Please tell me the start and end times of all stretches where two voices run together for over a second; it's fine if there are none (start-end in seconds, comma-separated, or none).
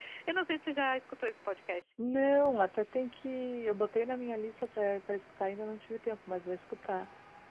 none